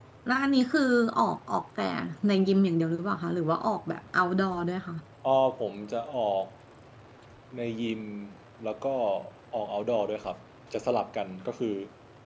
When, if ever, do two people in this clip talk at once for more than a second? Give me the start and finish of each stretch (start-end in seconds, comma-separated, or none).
none